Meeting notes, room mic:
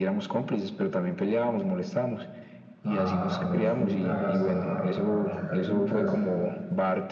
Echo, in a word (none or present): present